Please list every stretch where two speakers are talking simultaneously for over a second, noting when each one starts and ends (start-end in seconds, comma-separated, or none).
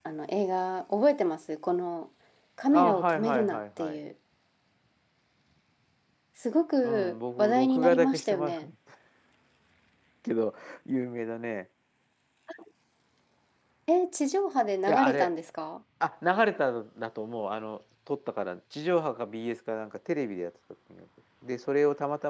2.7-4.0, 6.8-8.6